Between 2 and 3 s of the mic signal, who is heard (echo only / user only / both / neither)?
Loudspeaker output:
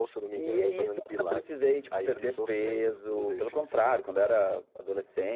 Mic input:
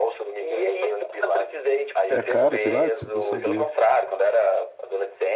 both